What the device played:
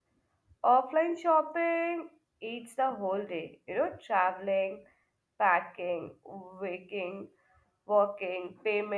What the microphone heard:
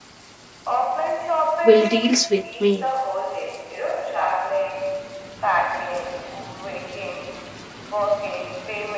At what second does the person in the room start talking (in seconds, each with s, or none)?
1.6 s